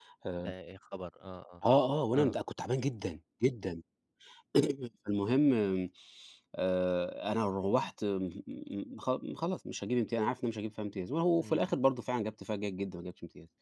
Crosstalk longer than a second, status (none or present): none